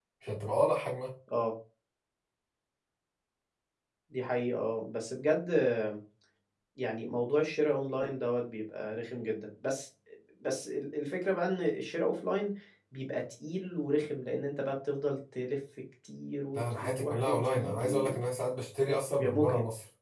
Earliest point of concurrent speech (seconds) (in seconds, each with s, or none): 16.5 s